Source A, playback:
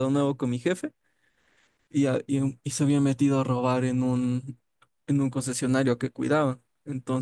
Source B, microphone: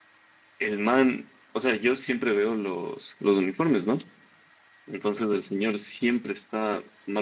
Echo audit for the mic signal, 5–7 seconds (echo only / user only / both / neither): user only